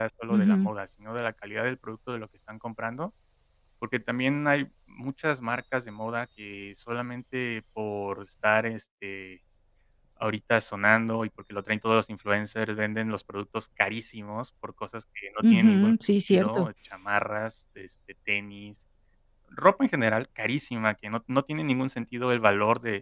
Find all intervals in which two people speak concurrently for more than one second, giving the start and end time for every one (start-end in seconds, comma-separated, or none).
15.4-16.7